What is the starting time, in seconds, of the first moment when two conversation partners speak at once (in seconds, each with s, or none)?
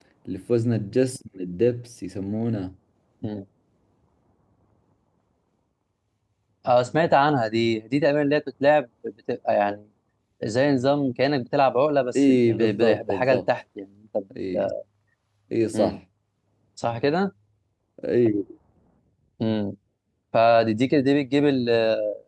12.2 s